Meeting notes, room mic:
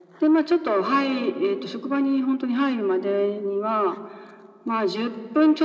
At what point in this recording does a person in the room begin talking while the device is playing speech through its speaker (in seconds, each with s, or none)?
none